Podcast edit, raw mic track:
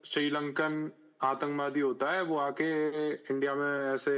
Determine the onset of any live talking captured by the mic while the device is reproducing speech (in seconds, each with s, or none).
none